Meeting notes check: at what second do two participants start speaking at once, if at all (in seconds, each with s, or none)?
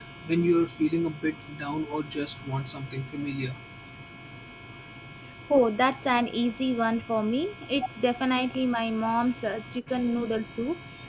none